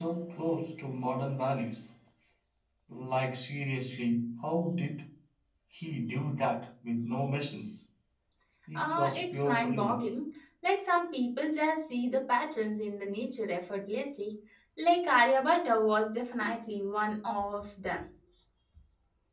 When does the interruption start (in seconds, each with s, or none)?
8.8 s